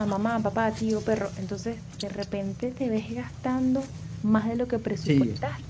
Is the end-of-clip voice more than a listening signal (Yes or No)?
No